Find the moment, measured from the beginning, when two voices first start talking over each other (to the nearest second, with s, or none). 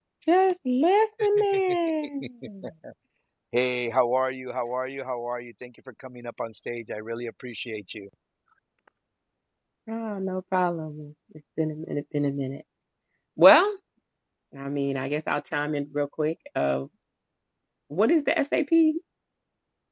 none